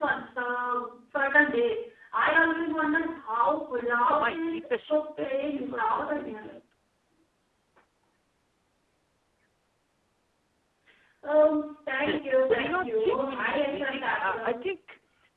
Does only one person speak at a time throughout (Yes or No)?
No